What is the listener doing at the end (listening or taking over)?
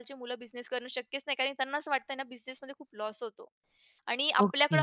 listening